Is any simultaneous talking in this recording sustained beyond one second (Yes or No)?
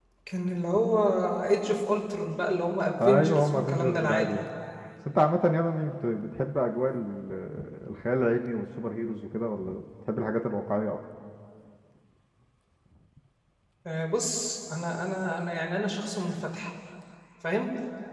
Yes